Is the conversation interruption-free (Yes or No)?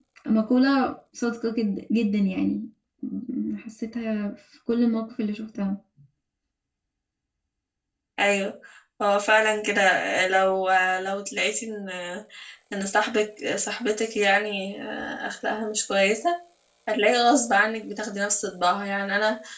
Yes